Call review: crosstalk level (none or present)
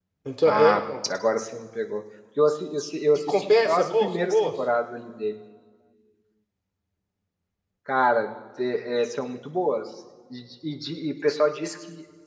present